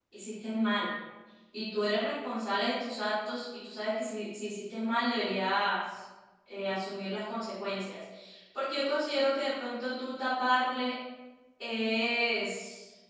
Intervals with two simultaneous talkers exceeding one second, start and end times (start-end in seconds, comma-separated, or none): none